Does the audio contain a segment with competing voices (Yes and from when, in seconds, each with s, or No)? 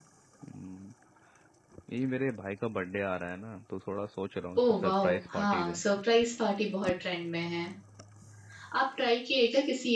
Yes, from 4.5 s